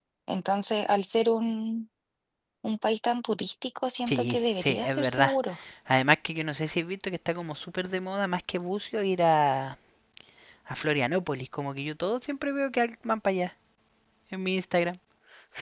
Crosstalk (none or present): present